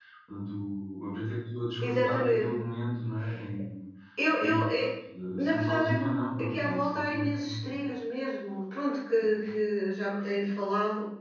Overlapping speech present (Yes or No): Yes